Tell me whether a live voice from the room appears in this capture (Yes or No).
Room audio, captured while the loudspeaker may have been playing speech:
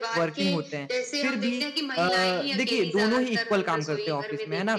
Yes